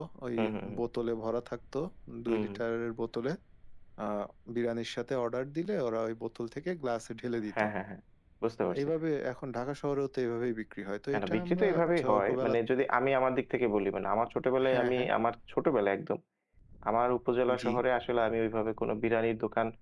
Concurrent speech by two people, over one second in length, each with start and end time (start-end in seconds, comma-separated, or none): 11.1-12.5